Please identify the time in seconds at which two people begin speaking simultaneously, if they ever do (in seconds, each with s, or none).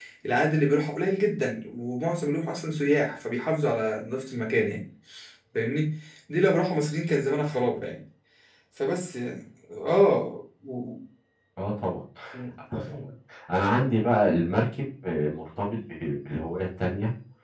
none